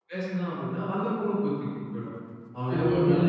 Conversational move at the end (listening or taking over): listening